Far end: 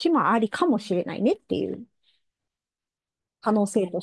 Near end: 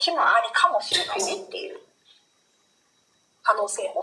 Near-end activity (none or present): present